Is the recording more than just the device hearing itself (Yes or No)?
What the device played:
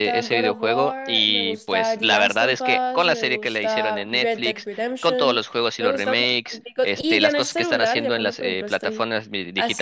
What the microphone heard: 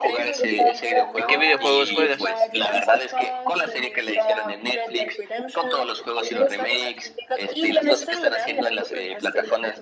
Yes